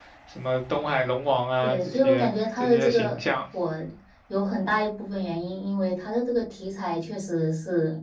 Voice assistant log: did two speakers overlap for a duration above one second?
Yes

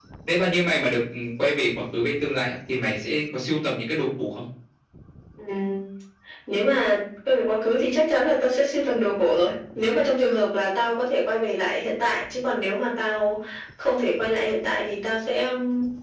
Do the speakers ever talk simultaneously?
No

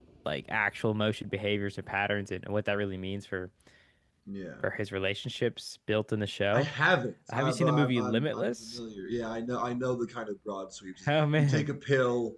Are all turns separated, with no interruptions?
No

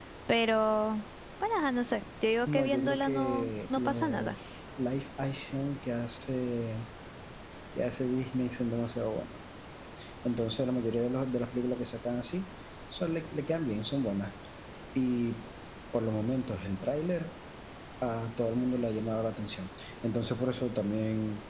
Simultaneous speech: Yes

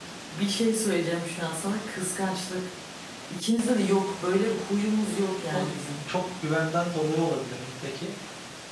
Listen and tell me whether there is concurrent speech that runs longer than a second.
No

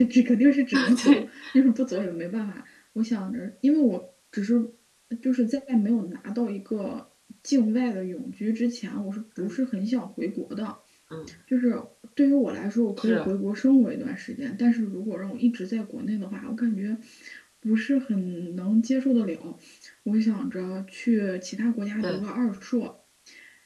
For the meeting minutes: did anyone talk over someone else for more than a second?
No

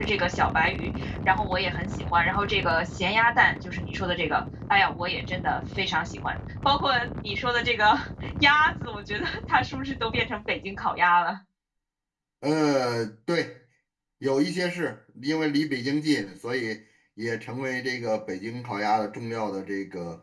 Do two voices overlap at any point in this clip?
No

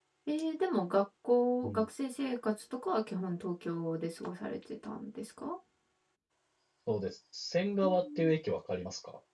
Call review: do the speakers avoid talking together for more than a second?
Yes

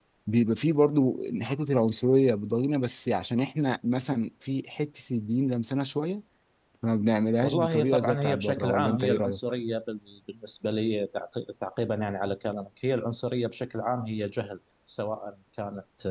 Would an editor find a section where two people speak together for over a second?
Yes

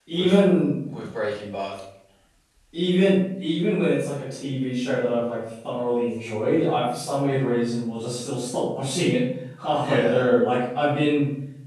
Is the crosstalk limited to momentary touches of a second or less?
Yes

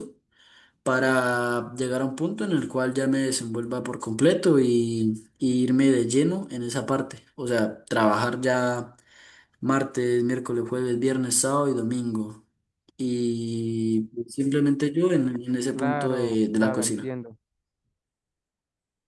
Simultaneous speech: Yes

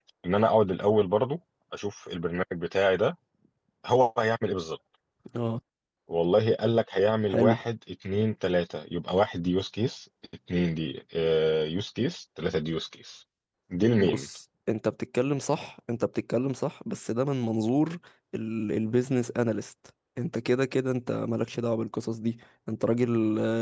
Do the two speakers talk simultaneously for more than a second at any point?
No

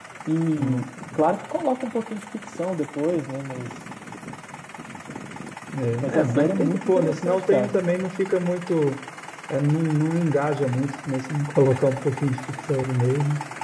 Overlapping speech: Yes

